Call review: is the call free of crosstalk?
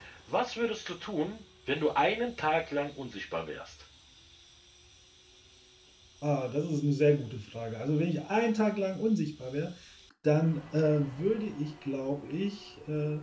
Yes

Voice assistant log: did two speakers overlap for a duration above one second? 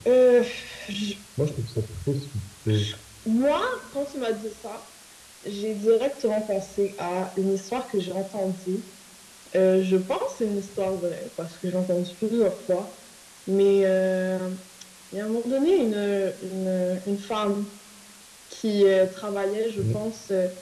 No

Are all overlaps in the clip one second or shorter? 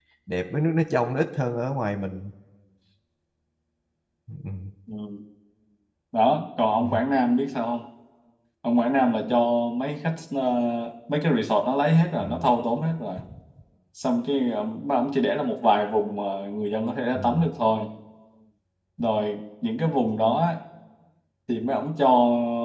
Yes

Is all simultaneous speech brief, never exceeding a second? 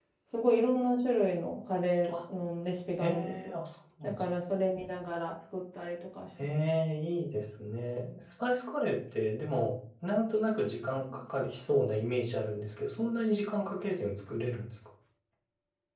Yes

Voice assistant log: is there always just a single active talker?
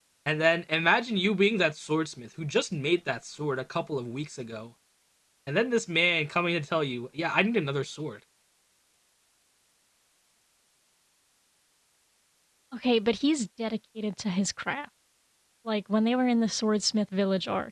Yes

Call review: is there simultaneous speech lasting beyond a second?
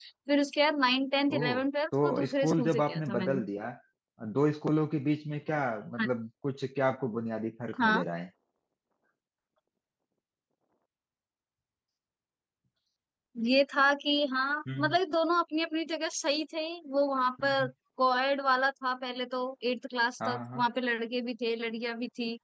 Yes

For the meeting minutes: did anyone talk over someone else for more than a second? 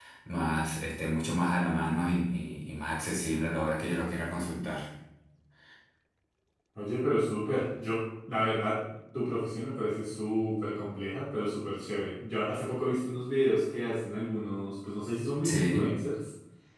No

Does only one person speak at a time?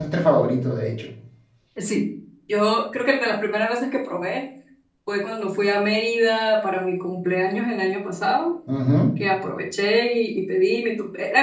Yes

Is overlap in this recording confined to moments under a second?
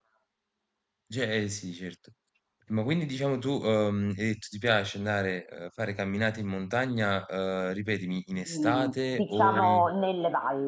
No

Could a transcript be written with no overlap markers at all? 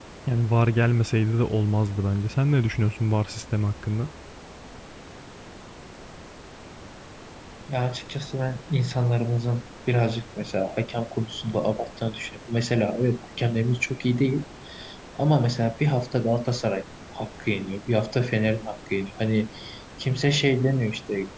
Yes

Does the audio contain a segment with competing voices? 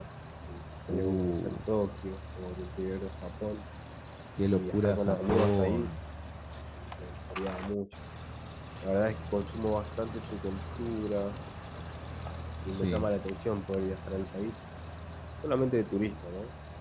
Yes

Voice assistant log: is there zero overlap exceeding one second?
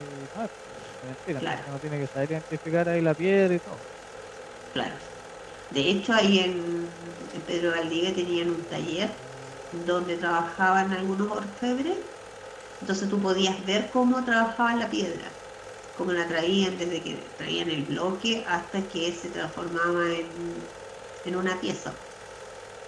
Yes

